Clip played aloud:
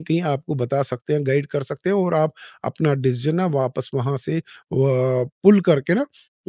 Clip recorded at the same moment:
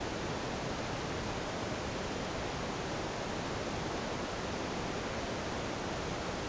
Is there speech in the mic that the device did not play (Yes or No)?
No